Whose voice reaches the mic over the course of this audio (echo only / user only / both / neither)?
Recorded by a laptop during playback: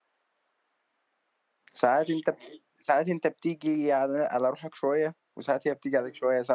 user only